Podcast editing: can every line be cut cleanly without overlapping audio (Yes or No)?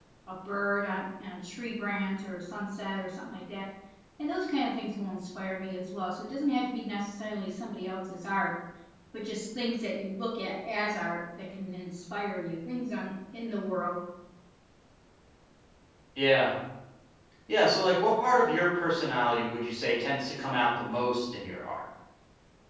Yes